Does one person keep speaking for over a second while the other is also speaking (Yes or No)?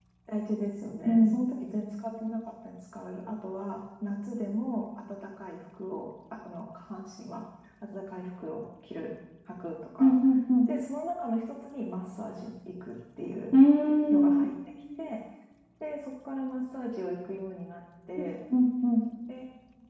No